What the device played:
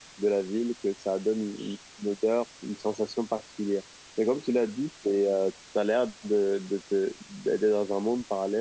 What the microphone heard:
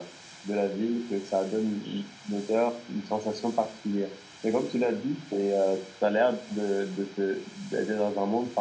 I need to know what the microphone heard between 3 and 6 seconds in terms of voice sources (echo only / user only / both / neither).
echo only